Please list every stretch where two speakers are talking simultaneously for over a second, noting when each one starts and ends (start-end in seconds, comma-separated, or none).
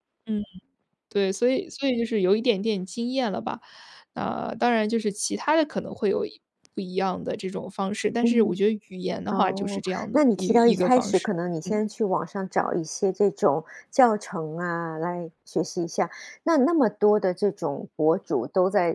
9.3-11.2